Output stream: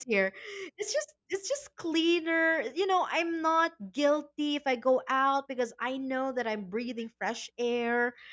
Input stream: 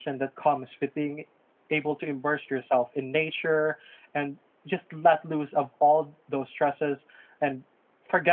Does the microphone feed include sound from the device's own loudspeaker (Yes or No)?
No